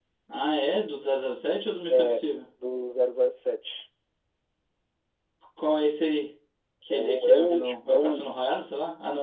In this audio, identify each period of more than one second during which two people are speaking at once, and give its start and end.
6.9-8.2

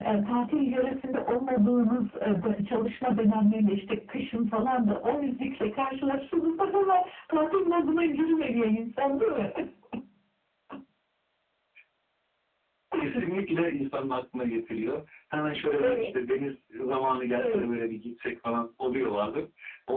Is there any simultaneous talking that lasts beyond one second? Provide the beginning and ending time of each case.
none

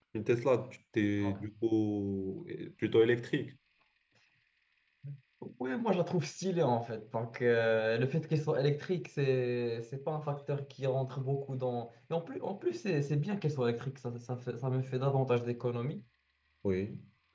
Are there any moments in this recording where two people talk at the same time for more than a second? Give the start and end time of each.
none

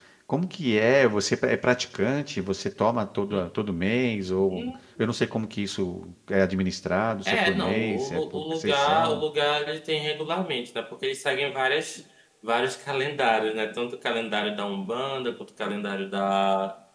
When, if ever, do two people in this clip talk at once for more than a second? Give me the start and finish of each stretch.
7.2-9.2

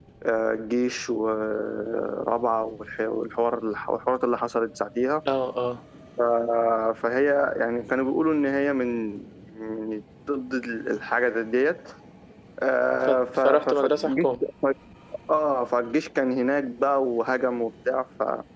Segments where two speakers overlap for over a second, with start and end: 13.1-14.3

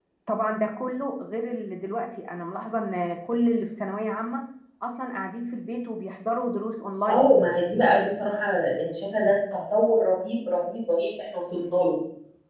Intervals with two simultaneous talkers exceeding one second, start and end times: none

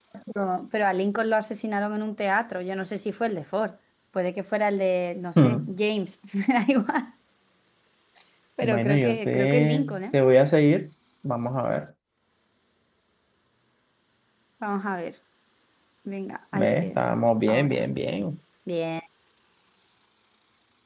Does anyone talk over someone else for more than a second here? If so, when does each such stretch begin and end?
8.6-10.1

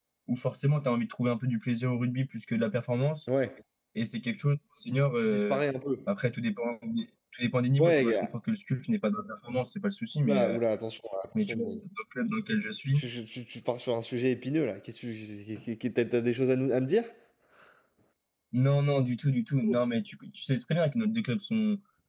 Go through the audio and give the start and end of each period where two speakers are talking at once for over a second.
none

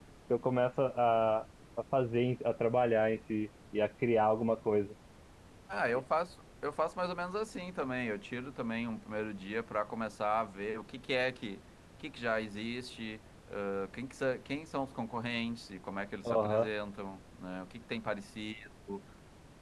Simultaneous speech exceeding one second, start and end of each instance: none

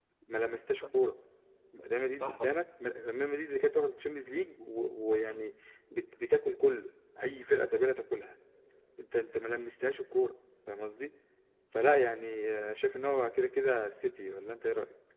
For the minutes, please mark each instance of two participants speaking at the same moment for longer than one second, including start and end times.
none

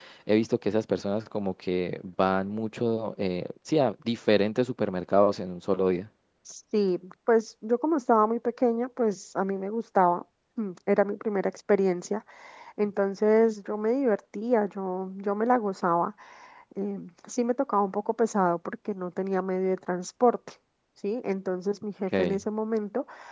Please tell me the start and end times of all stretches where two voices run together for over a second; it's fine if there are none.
none

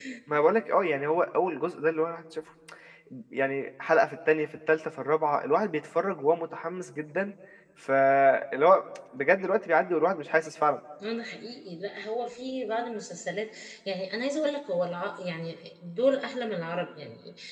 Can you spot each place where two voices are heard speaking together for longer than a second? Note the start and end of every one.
none

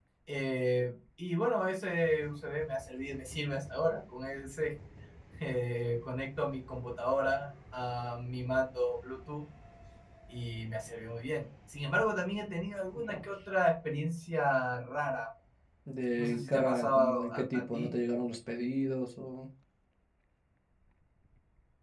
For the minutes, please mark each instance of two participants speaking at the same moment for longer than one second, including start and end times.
16.2-17.9

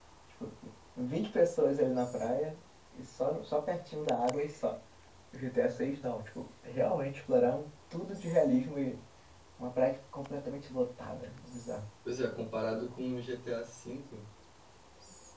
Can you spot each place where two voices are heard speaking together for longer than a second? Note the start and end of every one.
none

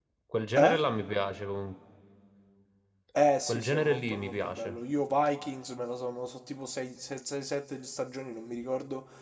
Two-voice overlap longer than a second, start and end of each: 3.5-4.8

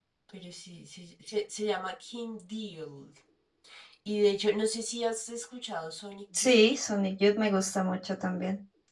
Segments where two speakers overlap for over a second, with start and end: none

